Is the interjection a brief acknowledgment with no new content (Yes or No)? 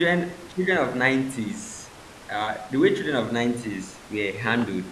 Yes